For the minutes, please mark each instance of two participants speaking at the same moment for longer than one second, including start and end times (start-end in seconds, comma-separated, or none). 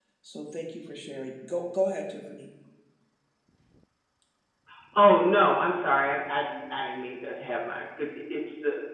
none